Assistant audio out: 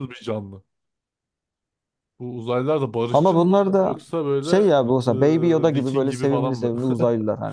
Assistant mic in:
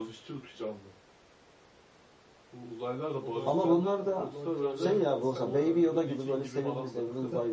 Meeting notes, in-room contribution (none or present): present